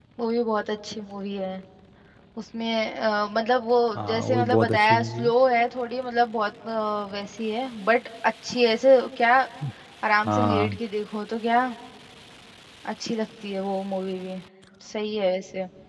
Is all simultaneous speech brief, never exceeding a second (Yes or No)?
No